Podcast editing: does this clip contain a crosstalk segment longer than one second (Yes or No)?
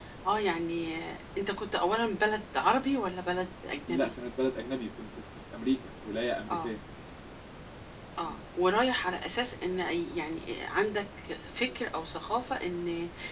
No